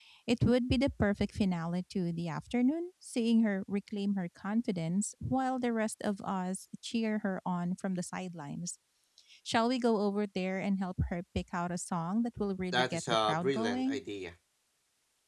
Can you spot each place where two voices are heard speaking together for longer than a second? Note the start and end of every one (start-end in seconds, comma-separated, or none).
12.7-14.0